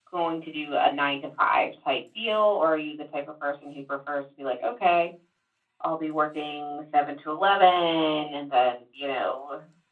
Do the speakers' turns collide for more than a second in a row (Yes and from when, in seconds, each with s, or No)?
No